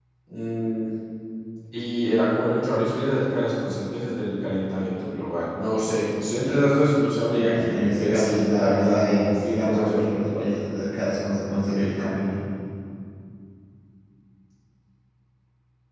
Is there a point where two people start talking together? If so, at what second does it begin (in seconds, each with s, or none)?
7.4 s